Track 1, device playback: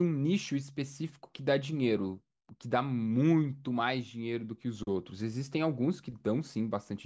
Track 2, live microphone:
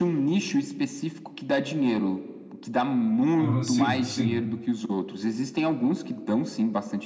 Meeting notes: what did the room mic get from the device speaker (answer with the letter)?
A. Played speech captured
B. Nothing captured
A